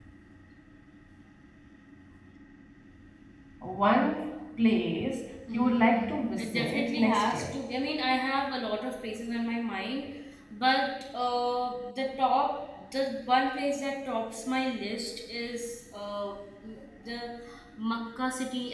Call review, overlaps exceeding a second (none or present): present